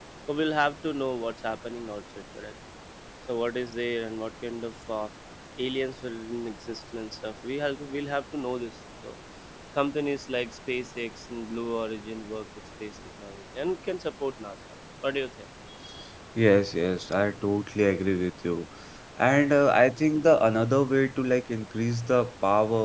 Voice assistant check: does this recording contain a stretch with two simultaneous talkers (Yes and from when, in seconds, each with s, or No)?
No